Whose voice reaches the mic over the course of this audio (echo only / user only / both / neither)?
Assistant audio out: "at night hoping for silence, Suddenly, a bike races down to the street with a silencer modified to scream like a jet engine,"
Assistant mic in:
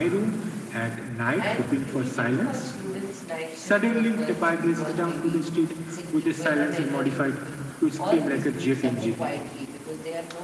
both